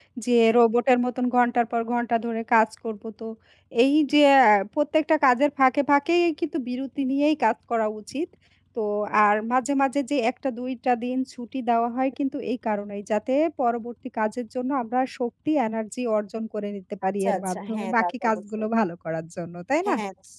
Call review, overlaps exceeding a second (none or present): present